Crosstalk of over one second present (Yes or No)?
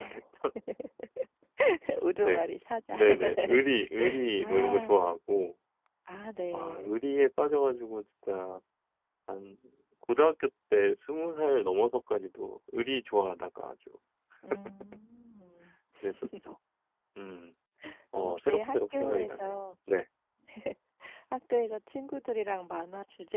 Yes